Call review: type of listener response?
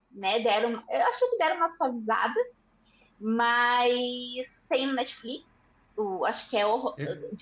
listening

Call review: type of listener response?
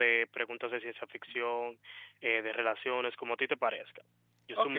taking over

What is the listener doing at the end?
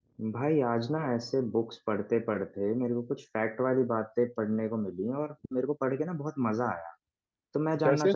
listening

